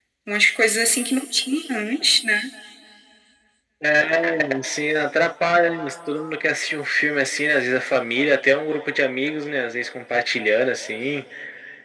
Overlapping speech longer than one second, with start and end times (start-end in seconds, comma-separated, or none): none